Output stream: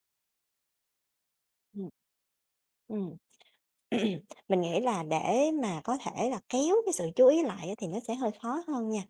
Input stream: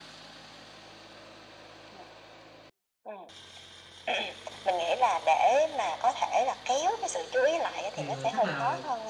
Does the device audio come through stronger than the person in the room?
Yes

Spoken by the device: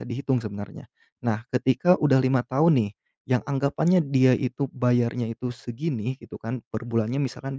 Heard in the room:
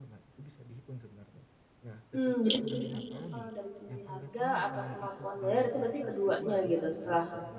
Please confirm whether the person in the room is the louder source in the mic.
Yes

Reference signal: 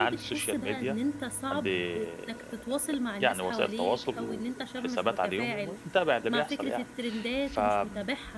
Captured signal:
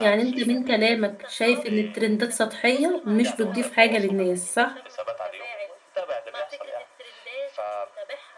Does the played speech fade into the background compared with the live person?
Yes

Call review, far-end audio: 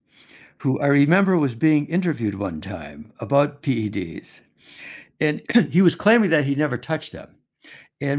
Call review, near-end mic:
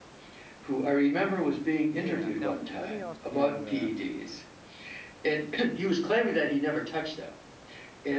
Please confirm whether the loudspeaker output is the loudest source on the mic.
Yes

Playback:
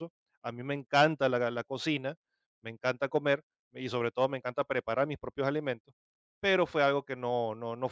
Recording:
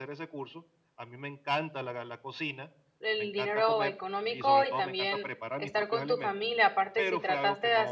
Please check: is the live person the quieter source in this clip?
No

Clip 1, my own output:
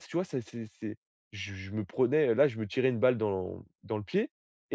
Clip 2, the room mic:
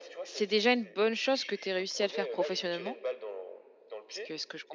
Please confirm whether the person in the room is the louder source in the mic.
Yes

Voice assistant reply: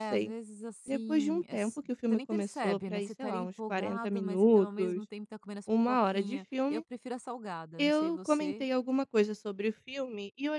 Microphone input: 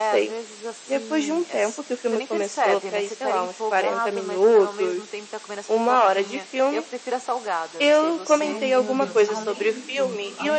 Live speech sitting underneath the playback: Yes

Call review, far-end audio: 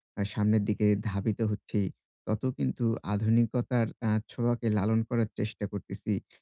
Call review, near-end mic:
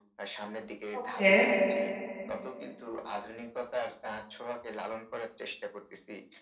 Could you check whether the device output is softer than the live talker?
Yes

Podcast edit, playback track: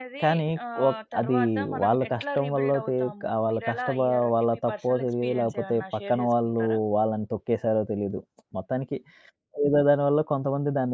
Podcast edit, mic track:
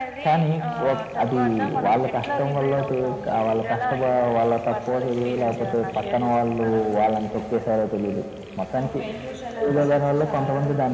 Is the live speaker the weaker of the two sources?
Yes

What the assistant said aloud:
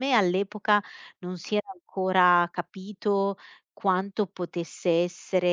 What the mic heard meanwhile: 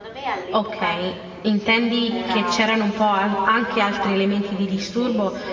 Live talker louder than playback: Yes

